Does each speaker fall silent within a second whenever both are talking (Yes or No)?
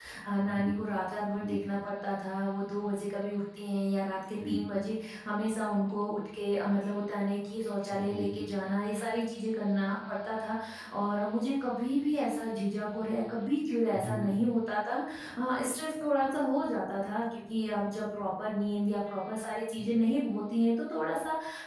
Yes